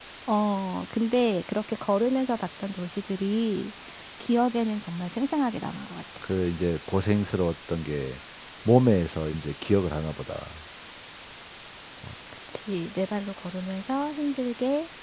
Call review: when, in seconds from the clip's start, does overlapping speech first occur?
none

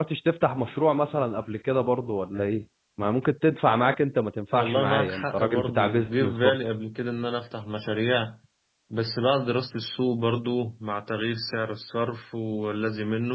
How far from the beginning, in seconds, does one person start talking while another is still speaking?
4.5 s

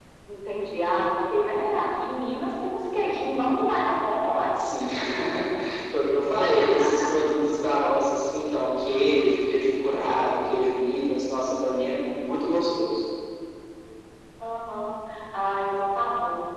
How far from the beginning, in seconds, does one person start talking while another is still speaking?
none

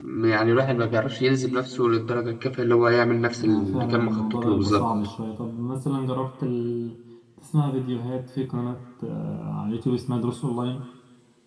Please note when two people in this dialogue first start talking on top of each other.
3.4 s

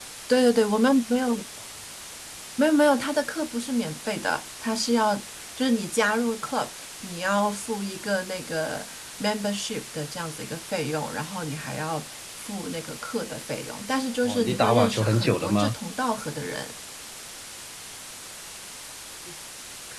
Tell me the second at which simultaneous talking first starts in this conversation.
14.2 s

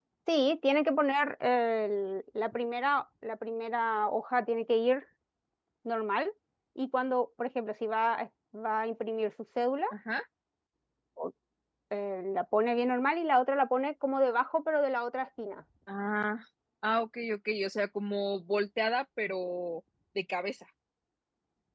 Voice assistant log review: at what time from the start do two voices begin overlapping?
none

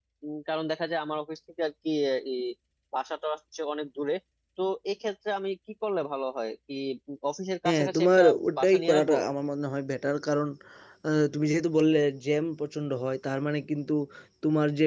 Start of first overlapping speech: 7.7 s

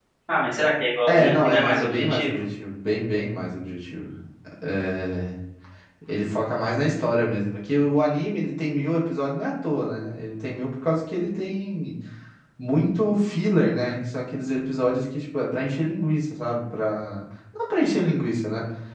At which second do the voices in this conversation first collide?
1.1 s

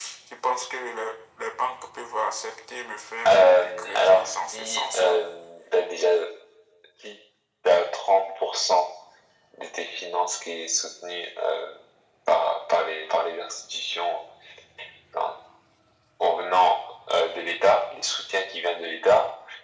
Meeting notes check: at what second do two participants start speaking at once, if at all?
3.2 s

